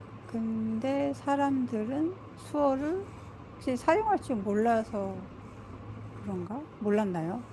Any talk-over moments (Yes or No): No